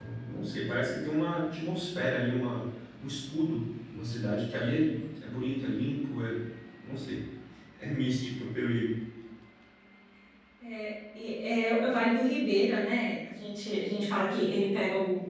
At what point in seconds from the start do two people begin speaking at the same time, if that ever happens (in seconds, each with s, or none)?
none